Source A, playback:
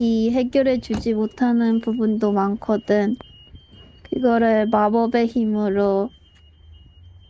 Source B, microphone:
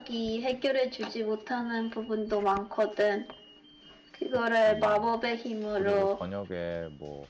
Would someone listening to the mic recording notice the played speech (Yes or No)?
Yes